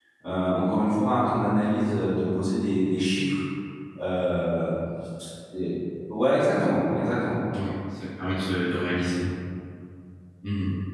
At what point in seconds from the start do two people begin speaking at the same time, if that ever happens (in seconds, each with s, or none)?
none